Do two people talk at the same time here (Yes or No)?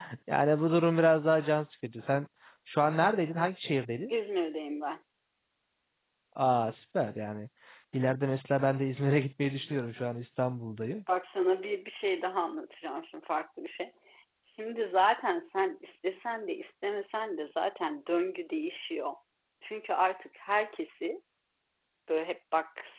No